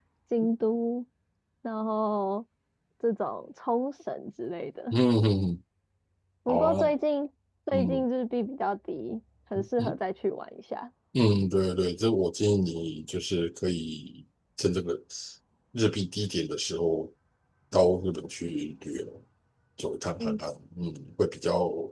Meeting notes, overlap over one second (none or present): none